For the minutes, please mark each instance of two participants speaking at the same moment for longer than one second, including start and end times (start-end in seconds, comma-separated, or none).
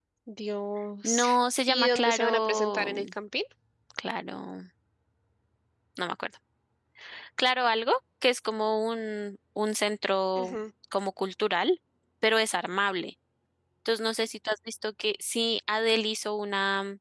1.7-3.0